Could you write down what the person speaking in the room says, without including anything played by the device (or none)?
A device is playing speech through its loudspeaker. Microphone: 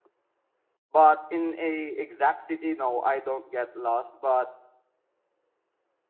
But in a exact city, no, I don't get lost. But